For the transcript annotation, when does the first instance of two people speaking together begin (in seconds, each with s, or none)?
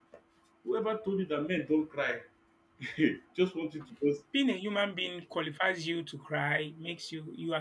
none